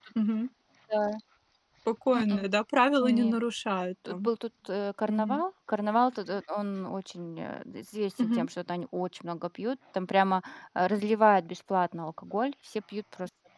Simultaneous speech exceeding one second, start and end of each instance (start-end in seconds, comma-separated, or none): none